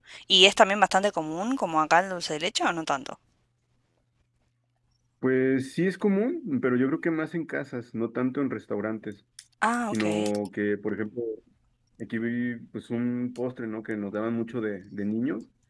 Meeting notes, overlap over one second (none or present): none